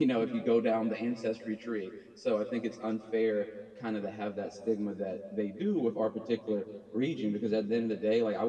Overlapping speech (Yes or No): No